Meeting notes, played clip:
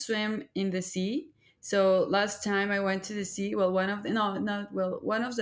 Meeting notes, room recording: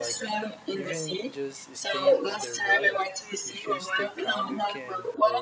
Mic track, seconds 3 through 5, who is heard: both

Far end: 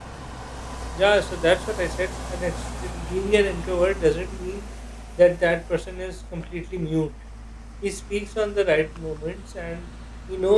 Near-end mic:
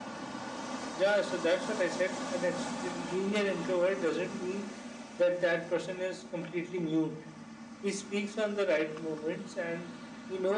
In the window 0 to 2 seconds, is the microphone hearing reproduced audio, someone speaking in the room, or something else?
echo only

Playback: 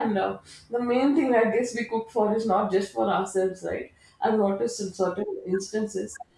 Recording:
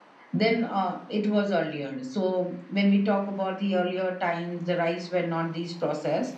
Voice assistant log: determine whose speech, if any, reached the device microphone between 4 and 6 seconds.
user only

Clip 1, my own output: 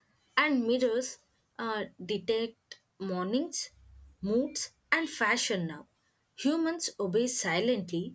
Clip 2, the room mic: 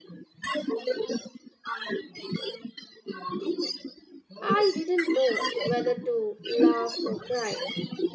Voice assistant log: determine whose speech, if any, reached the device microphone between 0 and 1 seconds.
echo only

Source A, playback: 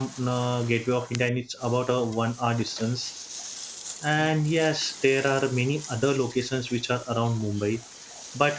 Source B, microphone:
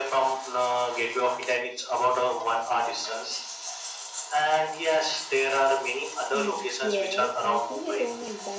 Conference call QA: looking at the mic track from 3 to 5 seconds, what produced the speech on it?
echo only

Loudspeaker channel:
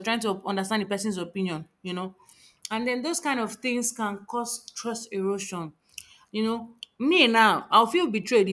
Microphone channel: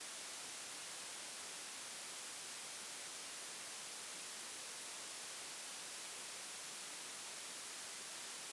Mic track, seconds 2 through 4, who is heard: neither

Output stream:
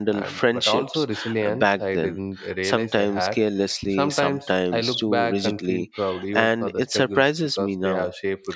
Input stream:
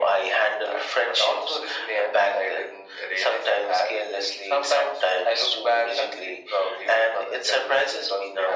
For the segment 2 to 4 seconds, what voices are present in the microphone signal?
echo only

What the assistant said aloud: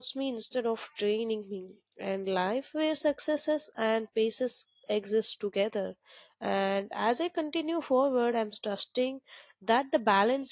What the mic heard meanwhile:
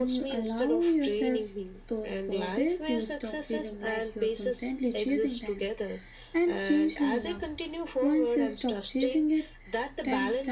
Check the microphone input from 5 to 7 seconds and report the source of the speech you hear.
both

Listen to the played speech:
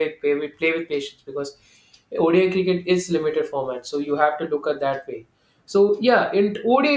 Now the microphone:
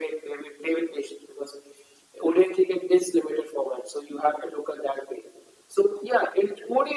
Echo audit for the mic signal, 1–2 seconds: echo only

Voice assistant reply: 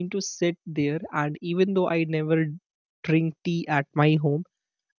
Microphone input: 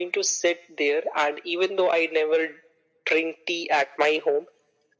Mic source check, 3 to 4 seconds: echo only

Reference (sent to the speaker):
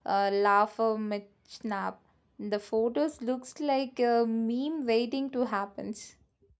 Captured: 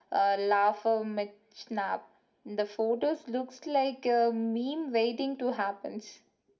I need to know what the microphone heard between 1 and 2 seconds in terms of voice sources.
echo only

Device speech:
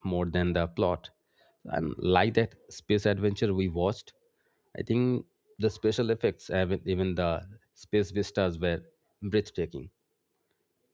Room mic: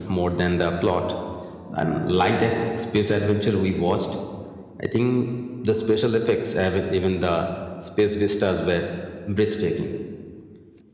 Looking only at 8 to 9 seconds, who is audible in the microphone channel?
echo only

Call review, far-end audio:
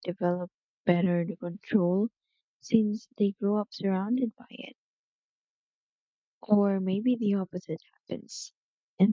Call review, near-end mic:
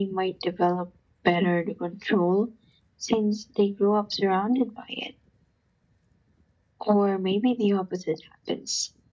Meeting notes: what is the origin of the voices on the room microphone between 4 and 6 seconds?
echo only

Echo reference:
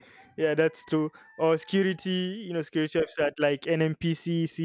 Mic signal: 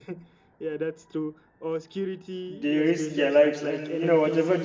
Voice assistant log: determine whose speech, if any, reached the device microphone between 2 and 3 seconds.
both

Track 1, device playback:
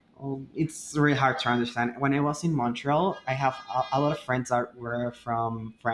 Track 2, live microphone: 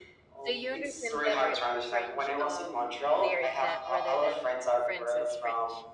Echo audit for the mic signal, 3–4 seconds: both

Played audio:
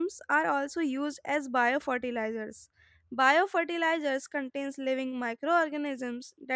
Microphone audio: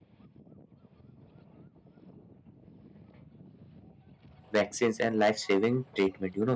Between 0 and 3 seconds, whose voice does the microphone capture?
neither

